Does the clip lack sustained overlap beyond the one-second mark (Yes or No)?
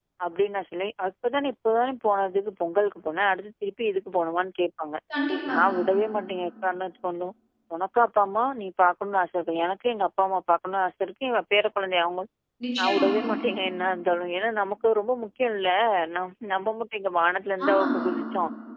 Yes